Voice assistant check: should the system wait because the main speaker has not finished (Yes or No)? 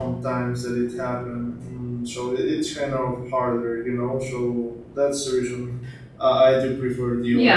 No